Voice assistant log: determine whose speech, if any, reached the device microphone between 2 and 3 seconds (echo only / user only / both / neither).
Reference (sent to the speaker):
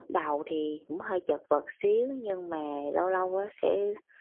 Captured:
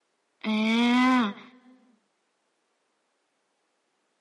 neither